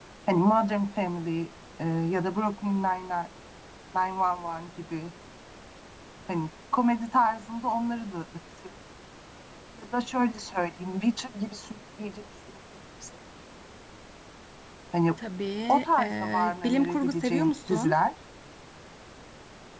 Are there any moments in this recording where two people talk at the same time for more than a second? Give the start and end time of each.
15.7-18.0

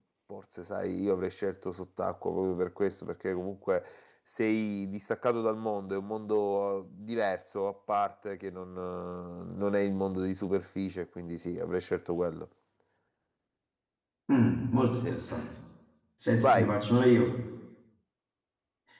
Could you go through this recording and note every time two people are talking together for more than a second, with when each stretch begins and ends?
none

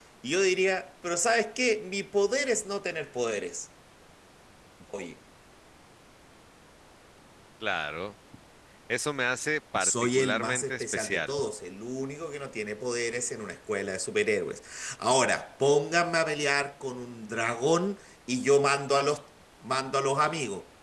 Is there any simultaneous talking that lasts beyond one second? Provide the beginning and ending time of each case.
9.8-11.3

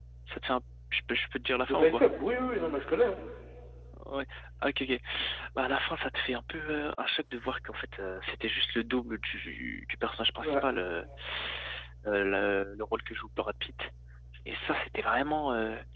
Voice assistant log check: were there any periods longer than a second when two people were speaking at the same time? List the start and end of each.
none

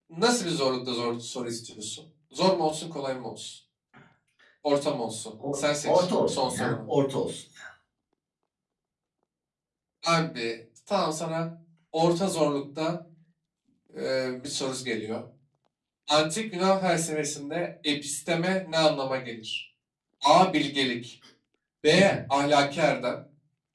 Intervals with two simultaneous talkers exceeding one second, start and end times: 5.5-6.8

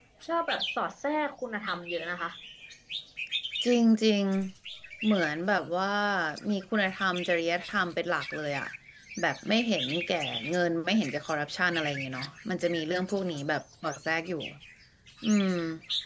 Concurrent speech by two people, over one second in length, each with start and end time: none

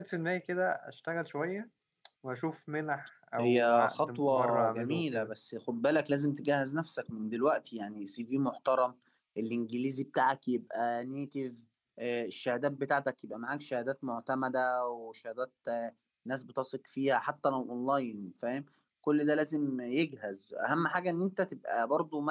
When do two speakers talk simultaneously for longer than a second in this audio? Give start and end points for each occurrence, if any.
3.4-5.3

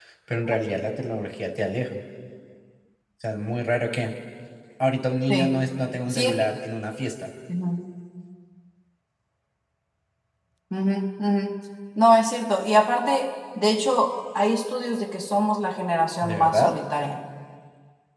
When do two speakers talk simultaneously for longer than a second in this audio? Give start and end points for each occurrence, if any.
none

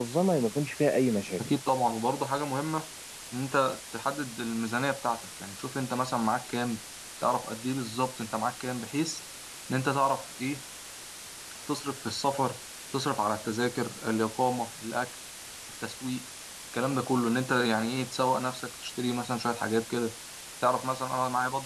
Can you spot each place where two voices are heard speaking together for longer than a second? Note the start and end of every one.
none

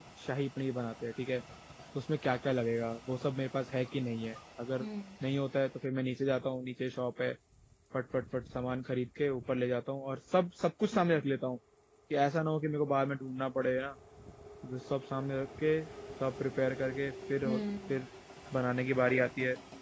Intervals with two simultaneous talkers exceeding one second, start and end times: none

